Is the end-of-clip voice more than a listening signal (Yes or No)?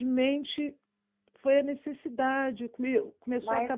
No